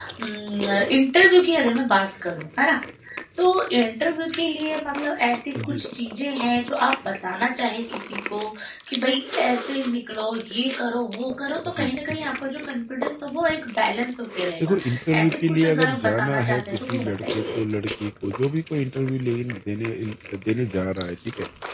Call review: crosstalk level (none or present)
present